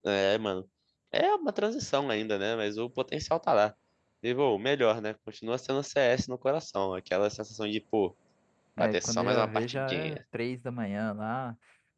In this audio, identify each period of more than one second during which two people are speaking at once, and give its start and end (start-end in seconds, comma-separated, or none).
8.8-10.2